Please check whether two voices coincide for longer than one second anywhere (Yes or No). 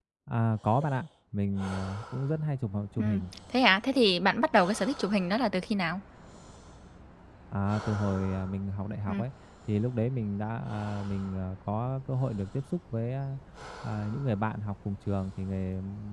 No